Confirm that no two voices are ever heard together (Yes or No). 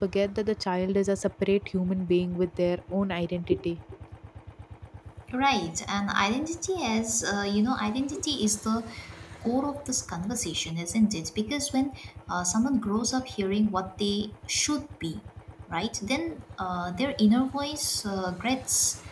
Yes